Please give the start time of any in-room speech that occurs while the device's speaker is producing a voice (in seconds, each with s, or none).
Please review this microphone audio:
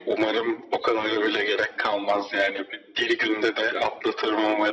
none